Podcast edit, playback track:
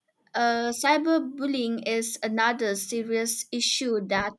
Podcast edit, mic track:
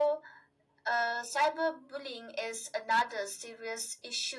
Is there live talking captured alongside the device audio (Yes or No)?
No